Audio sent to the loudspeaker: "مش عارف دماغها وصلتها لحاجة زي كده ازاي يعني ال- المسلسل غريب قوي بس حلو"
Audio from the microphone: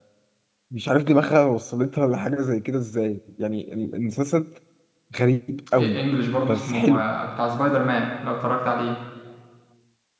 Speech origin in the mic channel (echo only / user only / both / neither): both